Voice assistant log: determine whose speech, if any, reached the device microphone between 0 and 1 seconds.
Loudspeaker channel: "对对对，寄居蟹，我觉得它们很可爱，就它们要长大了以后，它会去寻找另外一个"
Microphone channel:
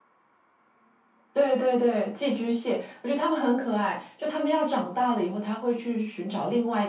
neither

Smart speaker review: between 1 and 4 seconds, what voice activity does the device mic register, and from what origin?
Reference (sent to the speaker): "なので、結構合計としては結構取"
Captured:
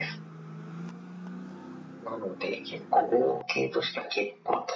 echo only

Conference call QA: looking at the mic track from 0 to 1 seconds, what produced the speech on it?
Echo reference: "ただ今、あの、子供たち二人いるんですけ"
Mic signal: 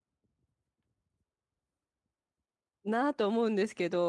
neither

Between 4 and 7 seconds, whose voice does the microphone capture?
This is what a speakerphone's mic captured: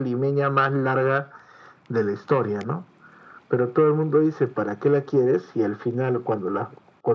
echo only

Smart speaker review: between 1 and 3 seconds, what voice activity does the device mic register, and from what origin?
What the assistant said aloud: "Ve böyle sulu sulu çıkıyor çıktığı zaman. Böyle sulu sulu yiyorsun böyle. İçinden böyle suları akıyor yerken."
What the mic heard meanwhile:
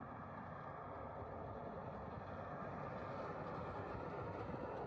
neither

